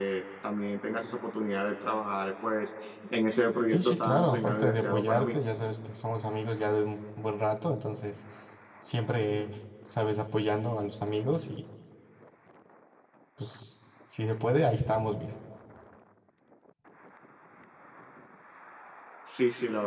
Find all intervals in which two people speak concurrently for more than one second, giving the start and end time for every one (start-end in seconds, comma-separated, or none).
3.7-5.3